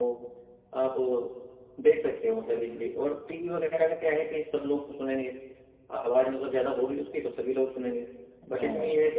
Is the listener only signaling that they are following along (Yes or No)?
Yes